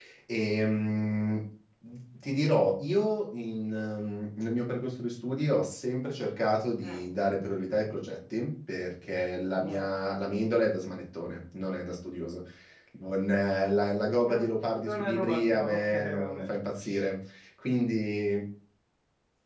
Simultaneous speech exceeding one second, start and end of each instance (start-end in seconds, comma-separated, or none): 14.8-16.5